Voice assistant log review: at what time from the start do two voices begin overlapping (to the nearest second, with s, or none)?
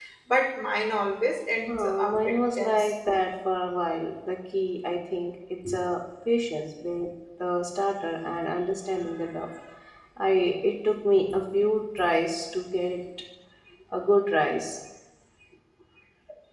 2 s